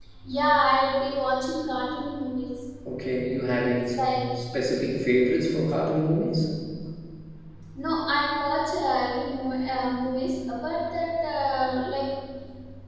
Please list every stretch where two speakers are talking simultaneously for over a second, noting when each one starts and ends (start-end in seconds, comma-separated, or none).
none